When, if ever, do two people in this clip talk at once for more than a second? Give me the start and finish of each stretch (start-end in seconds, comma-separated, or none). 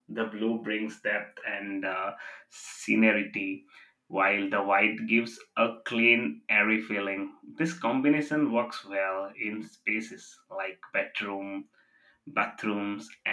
none